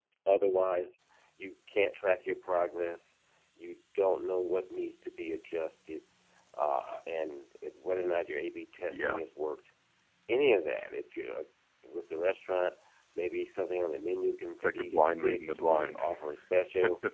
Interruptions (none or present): present